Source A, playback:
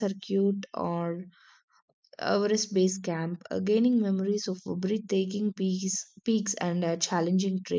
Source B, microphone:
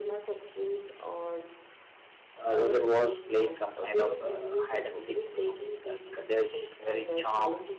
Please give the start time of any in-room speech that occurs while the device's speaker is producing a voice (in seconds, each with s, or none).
2.4 s